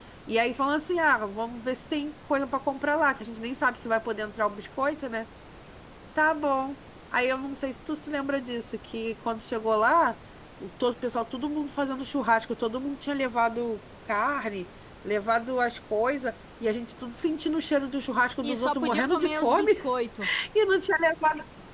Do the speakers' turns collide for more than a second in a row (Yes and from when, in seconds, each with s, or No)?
Yes, from 18.4 s